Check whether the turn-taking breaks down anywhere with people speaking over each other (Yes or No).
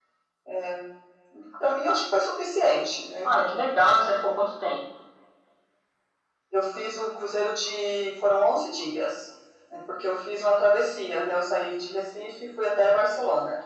No